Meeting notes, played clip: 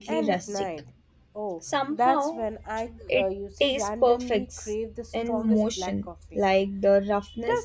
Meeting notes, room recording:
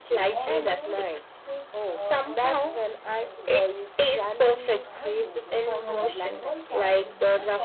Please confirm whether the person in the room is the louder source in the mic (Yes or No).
No